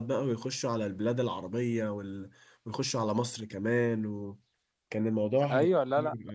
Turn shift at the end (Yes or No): Yes